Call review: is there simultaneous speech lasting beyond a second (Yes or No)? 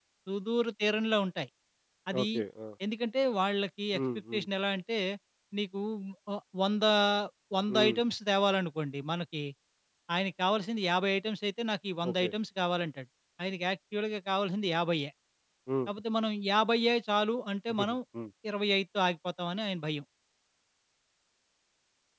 No